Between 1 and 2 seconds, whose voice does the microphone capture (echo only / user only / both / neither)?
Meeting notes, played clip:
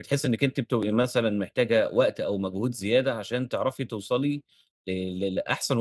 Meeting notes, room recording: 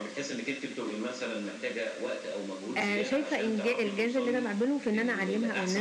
echo only